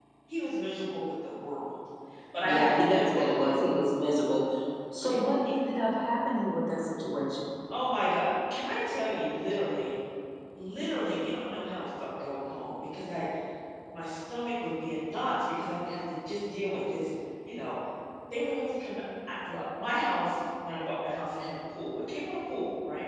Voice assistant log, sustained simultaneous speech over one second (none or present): present